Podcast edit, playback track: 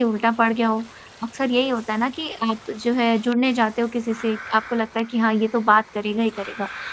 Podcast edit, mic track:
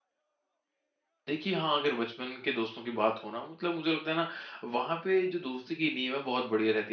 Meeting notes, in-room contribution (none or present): present